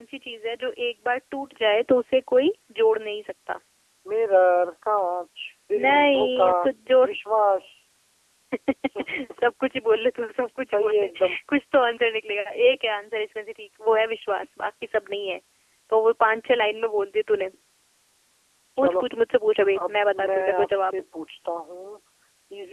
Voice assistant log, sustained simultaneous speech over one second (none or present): present